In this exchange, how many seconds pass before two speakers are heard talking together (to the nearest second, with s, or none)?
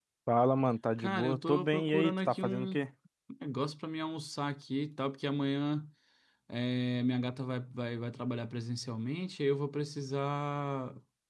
1 s